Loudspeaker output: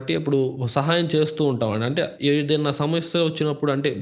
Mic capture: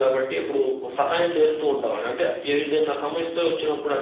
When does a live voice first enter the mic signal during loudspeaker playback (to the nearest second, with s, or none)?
none